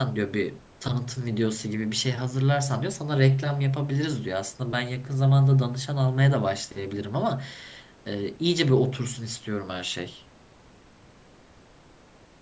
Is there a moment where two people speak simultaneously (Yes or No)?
No